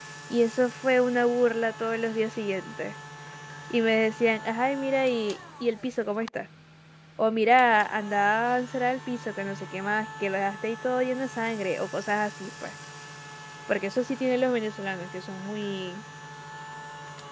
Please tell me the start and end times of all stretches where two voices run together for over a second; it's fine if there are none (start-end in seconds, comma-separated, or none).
none